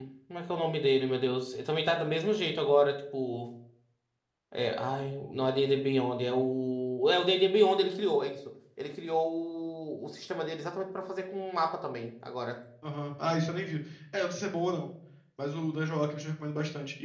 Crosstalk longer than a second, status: none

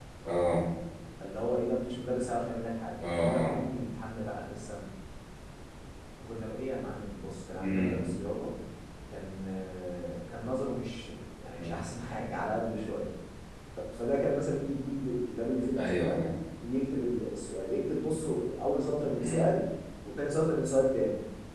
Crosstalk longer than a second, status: none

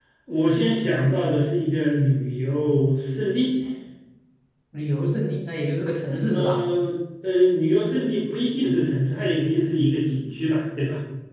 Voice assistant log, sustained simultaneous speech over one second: none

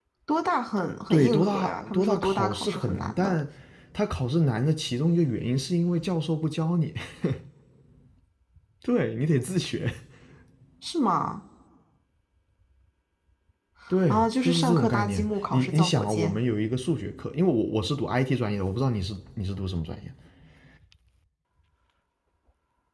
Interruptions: present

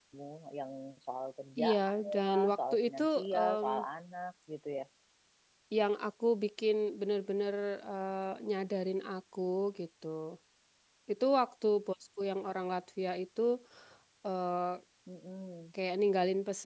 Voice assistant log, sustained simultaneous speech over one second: present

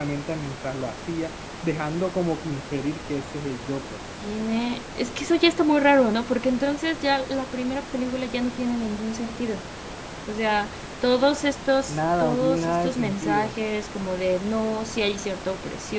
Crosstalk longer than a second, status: present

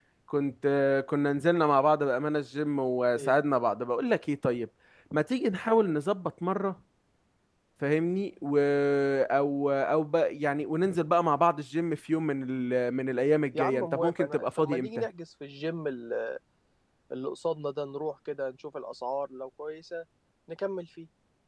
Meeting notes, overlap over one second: present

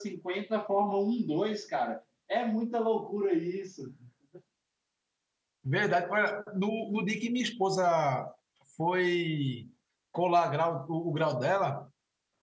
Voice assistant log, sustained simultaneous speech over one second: none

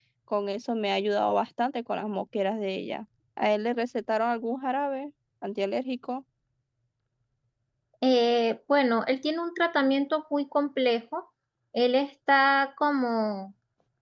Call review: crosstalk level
none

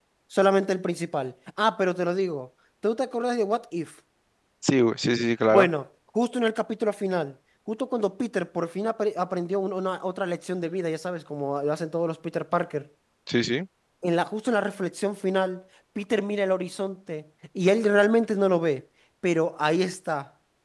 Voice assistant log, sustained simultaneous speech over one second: none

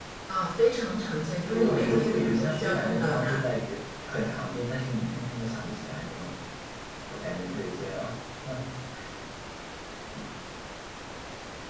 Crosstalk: present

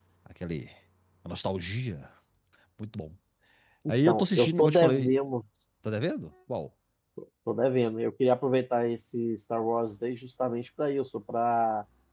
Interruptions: present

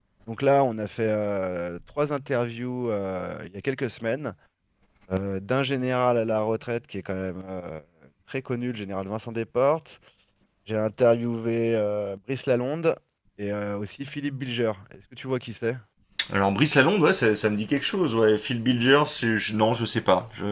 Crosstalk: none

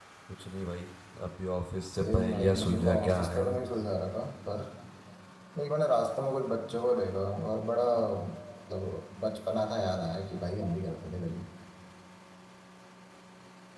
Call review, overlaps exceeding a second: present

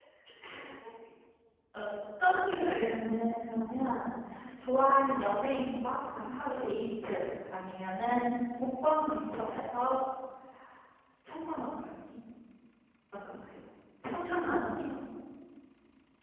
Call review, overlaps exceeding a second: none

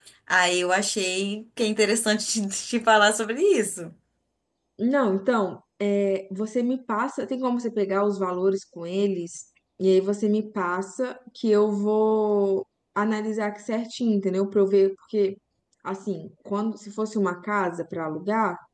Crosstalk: none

